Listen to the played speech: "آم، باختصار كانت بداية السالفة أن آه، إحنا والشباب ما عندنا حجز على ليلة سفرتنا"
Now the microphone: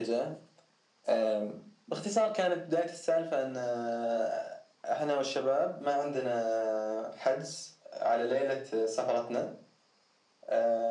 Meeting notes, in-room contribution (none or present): none